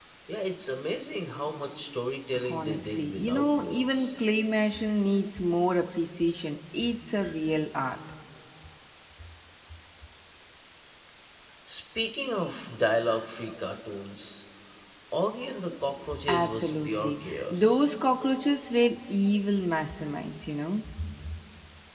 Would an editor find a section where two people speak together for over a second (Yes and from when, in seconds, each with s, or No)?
Yes, from 2.5 s